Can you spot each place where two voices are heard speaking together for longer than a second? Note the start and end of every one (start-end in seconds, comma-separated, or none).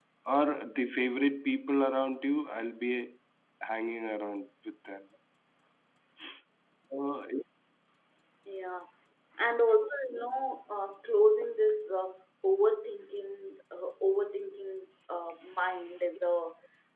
none